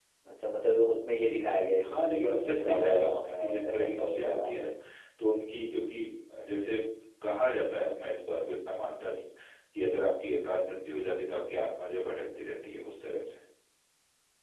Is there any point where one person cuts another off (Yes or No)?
Yes